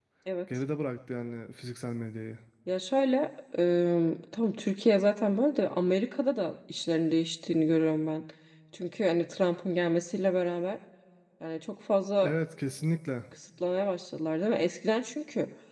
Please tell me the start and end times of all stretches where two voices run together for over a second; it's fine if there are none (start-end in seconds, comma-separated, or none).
none